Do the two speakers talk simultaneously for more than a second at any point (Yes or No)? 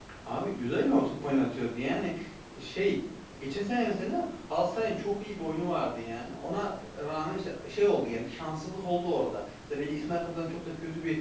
No